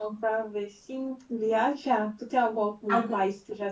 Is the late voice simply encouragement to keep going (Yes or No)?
Yes